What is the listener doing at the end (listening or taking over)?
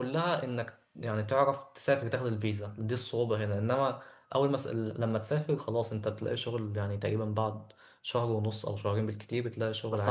taking over